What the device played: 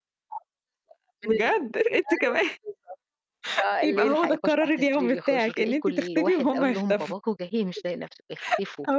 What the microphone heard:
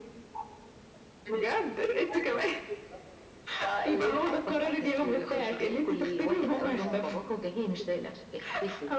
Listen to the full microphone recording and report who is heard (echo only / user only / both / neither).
both